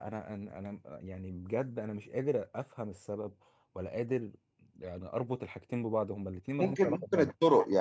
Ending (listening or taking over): taking over